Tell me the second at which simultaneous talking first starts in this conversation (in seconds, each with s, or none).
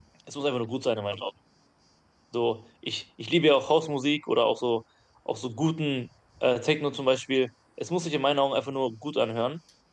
none